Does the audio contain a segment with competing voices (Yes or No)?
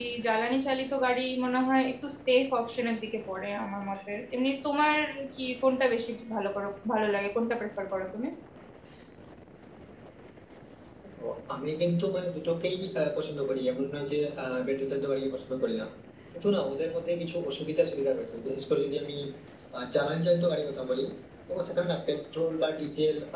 No